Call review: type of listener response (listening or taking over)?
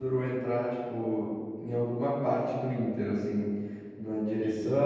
listening